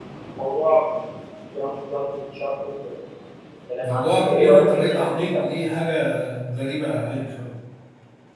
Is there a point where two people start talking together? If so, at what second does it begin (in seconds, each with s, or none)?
3.8 s